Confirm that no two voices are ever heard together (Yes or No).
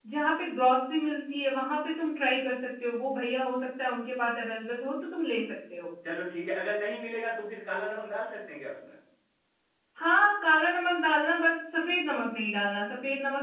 Yes